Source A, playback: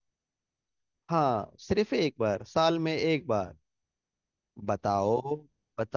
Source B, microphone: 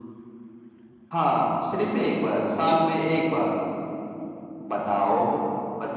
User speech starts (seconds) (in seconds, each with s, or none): none